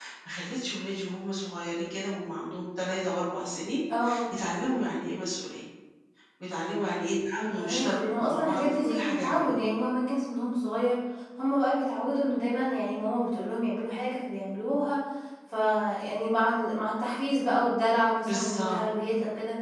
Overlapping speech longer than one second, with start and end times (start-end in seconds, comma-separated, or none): 7.6-9.6